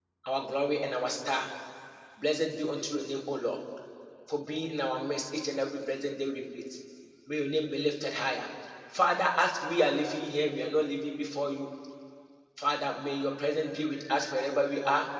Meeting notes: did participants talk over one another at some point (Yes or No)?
No